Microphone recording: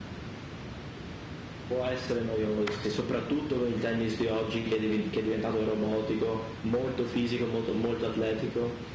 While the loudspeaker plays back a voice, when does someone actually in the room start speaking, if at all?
1.7 s

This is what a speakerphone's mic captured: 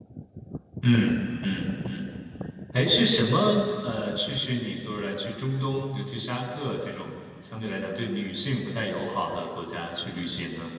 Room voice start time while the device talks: 0.8 s

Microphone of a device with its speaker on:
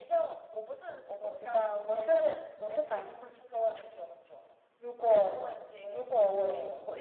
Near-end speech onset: none

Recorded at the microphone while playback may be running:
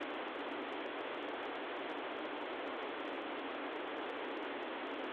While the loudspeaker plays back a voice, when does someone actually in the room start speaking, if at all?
none

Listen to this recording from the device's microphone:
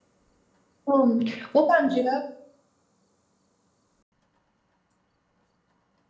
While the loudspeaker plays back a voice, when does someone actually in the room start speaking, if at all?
0.8 s

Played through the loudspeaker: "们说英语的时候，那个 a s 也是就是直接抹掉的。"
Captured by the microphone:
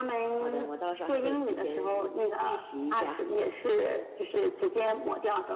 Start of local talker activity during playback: 0.3 s

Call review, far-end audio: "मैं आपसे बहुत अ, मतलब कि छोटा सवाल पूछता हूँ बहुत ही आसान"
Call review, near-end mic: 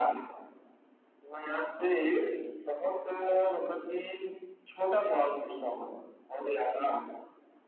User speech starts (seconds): none

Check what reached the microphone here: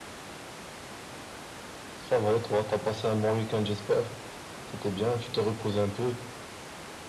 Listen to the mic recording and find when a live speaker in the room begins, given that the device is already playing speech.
none

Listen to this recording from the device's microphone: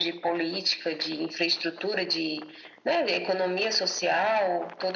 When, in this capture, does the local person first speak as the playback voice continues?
none

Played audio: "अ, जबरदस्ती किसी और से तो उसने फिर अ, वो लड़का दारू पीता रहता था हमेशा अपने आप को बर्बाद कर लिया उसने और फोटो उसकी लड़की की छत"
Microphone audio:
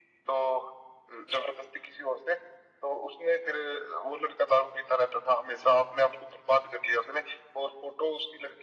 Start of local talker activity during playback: none

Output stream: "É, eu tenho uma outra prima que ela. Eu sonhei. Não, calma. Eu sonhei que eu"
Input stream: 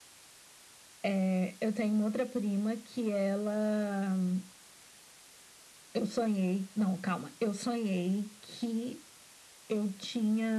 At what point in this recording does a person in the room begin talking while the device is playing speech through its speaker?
none

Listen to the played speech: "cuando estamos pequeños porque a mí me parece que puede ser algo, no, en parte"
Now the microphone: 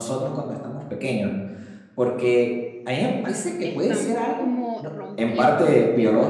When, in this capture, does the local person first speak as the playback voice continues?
3.6 s

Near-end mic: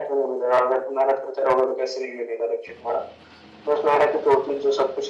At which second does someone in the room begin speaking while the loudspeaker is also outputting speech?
none

